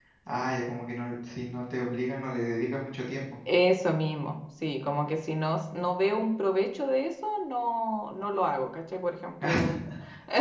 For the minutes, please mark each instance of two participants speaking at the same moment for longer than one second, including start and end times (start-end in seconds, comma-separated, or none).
none